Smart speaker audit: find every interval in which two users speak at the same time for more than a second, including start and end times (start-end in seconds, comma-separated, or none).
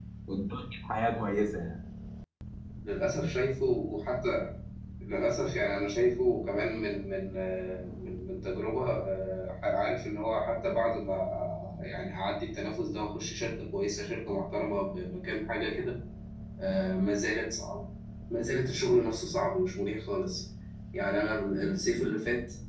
none